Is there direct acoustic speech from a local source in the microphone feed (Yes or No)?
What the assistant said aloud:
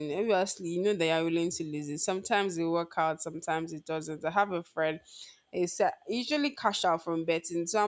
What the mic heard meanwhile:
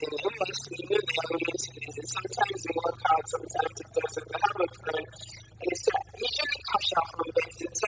No